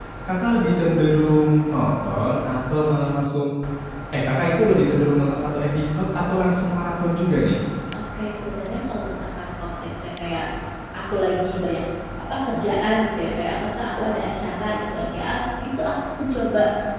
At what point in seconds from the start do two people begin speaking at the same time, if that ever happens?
none

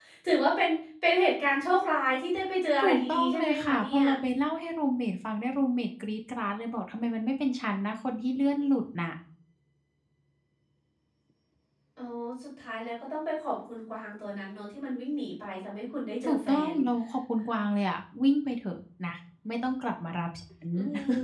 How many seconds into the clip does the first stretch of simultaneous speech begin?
2.8 s

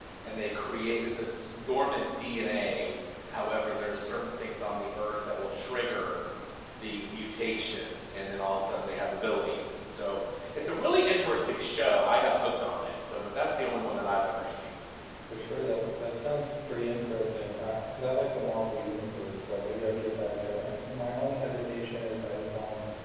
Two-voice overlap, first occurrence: none

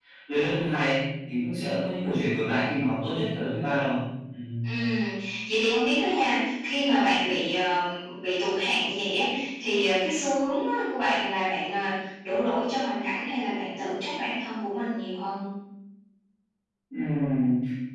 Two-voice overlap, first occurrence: none

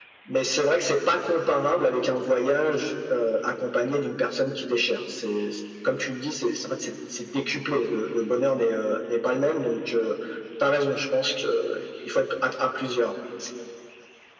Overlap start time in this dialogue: none

